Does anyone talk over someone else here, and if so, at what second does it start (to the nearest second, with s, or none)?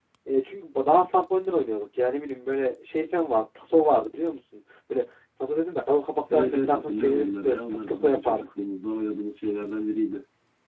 6 s